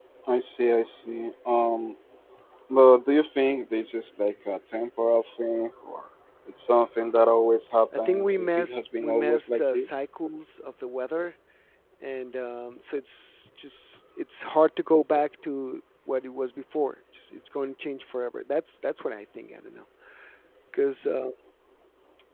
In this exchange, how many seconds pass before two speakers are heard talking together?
7.9 s

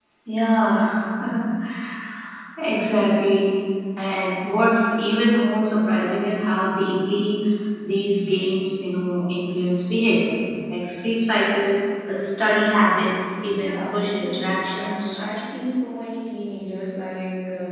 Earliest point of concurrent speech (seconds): 13.6 s

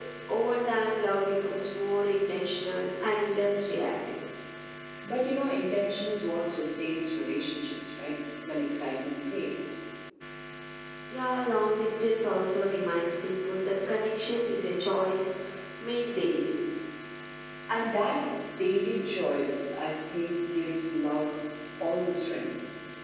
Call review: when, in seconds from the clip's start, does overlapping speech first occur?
none

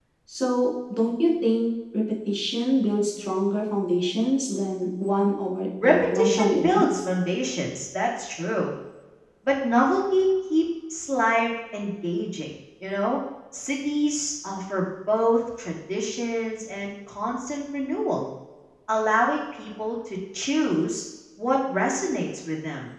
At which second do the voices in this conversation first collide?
5.8 s

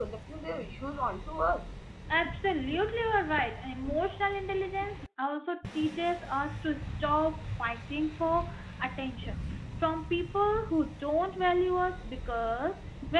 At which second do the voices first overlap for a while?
none

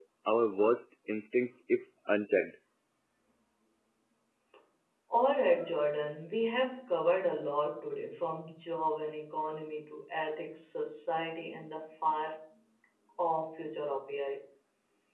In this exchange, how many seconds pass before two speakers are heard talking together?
none

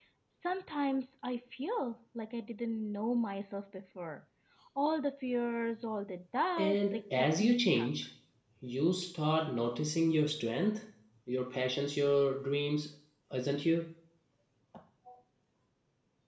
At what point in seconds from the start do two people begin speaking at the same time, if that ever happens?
6.6 s

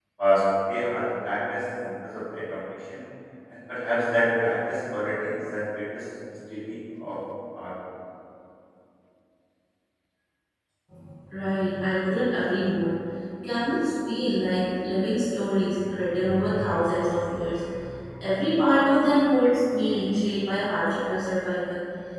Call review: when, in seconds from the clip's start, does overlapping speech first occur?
none

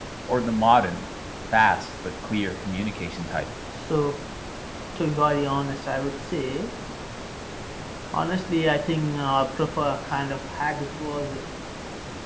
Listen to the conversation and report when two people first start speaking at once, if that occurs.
none

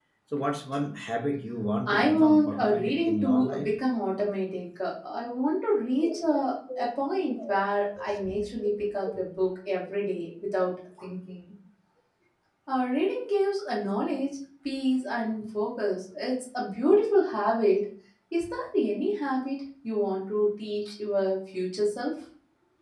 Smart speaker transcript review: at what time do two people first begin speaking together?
1.9 s

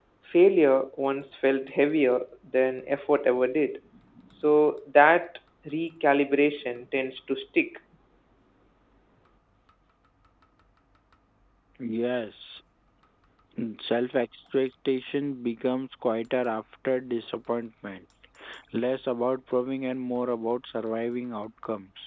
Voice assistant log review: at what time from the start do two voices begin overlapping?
none

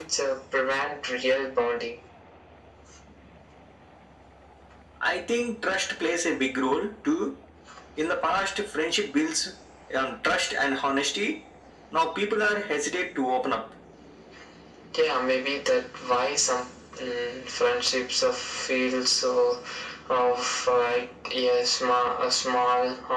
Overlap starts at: none

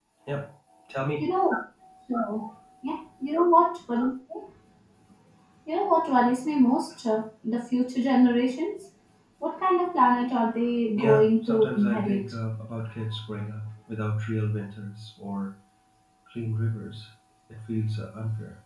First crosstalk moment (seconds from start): 11.0 s

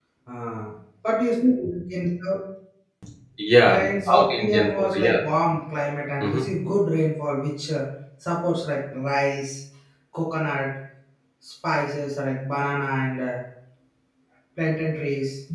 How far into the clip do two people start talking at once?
3.7 s

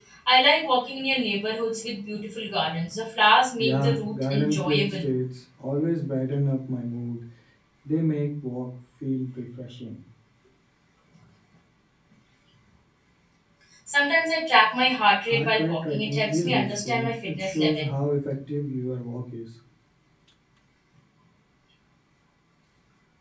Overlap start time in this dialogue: 3.6 s

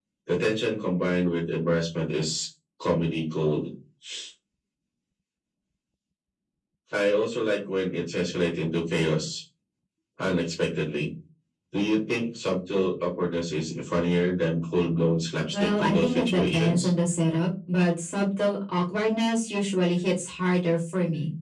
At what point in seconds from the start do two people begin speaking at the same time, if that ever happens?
15.5 s

